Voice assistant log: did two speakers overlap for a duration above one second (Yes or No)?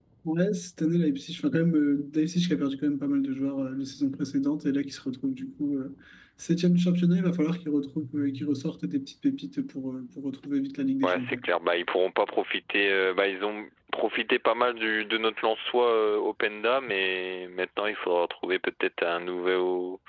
No